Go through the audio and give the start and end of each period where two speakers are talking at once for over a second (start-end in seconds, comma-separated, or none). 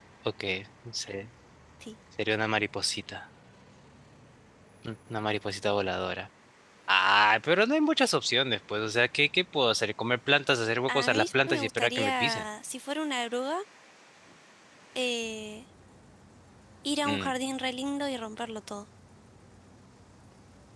10.9-12.4